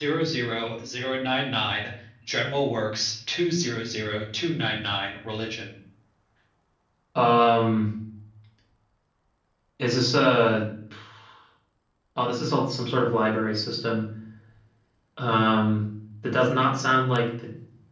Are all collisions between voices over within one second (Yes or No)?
Yes